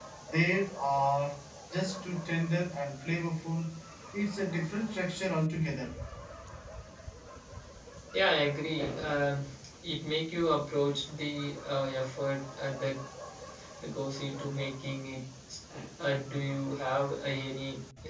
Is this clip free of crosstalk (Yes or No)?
Yes